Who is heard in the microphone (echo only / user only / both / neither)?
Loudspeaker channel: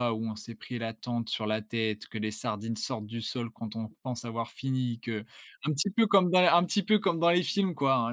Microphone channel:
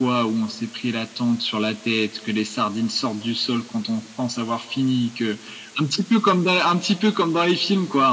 echo only